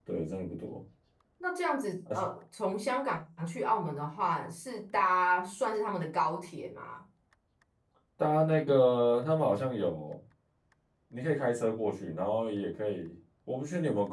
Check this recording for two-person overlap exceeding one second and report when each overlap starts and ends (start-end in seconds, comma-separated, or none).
none